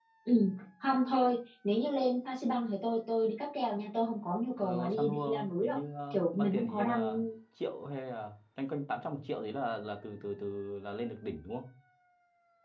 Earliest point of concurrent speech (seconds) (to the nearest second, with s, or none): 5 s